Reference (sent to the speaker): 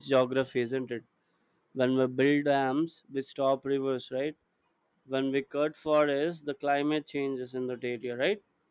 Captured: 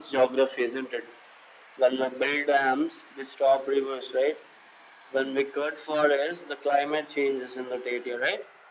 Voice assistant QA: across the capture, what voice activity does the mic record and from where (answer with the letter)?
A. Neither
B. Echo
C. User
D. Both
B